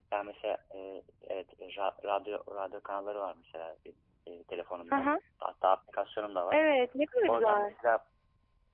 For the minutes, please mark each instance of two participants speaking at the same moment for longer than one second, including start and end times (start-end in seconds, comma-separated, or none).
none